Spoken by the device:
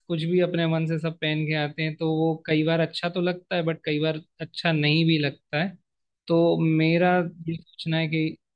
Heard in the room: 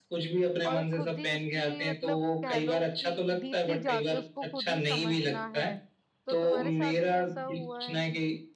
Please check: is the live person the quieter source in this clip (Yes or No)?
Yes